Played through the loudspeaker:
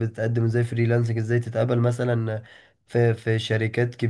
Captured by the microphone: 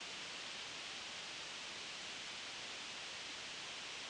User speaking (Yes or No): No